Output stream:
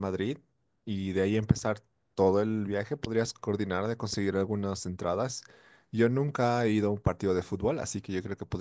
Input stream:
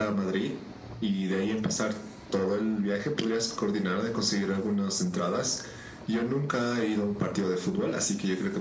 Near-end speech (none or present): none